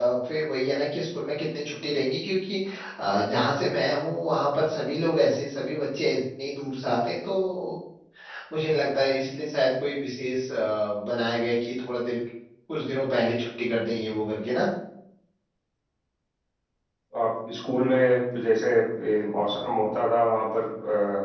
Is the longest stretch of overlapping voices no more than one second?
Yes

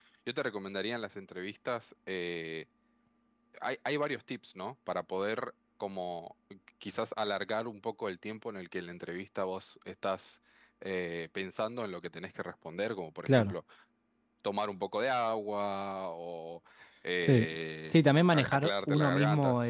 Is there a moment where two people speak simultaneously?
Yes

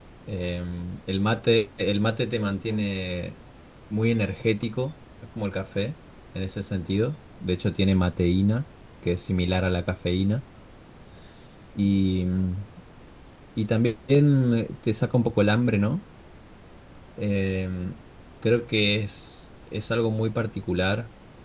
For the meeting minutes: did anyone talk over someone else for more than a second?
No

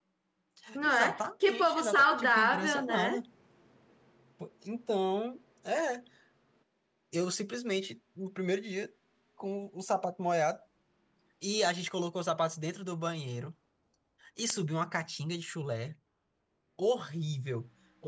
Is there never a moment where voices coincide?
No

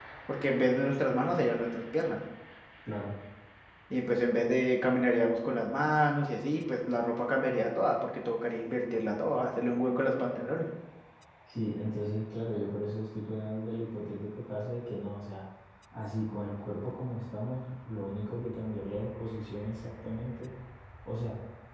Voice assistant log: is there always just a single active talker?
Yes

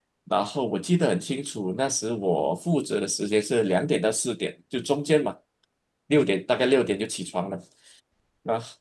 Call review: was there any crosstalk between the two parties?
No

